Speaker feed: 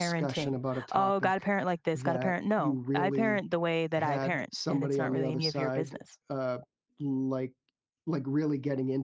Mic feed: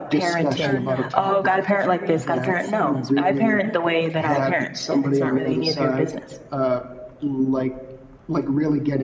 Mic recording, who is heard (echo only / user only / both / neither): both